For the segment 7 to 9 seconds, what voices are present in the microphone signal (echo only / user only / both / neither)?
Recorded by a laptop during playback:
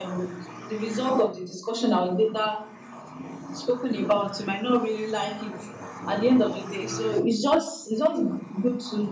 echo only